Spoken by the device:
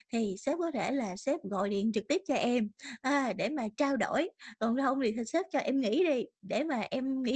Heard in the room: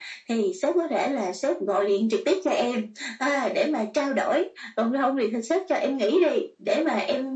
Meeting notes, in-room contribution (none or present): none